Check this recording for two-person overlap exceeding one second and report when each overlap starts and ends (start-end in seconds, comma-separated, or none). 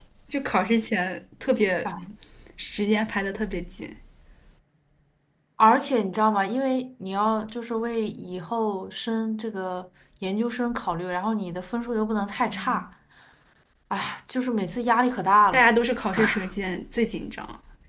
none